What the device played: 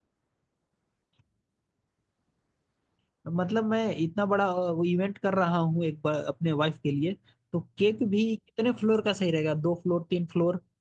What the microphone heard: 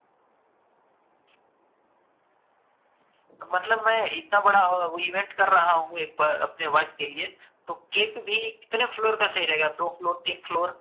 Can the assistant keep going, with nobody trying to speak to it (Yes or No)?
Yes